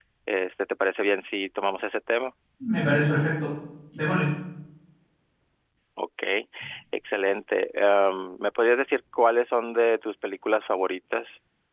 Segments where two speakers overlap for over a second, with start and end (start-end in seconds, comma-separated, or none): none